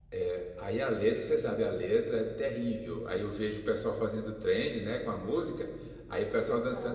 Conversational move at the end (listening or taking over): listening